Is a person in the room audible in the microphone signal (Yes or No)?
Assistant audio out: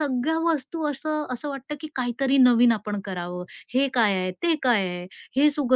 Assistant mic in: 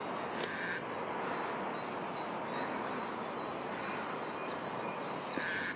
No